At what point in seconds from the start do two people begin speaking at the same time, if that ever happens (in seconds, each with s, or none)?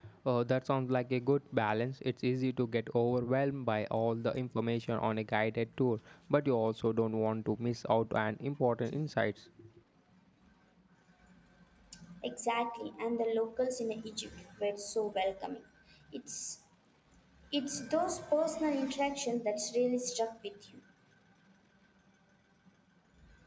none